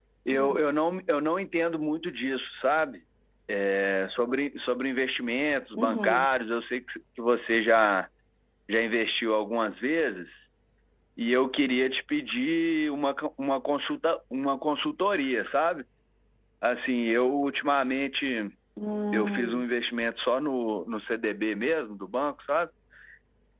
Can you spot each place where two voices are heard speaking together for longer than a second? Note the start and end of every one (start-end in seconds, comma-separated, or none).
none